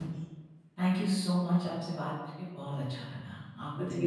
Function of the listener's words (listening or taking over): taking over